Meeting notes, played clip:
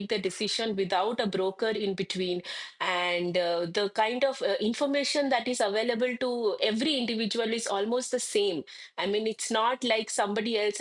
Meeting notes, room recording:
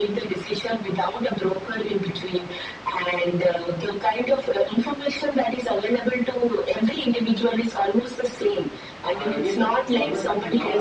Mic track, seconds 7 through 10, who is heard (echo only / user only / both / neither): both